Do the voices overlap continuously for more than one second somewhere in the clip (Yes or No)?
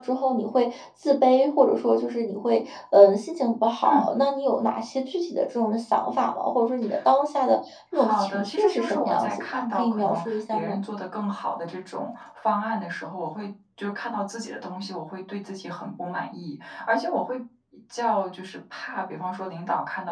Yes